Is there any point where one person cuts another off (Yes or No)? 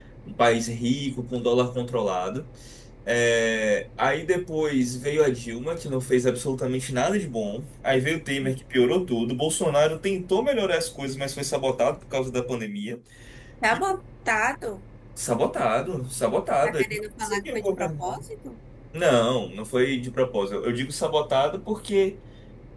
Yes